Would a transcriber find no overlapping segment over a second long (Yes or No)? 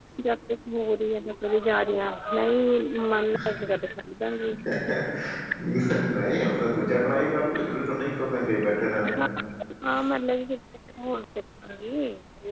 Yes